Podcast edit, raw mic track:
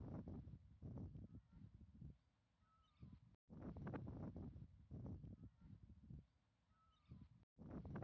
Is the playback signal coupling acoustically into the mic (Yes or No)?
No